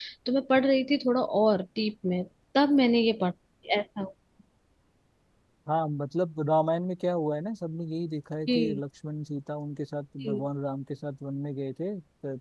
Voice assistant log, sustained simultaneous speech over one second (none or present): none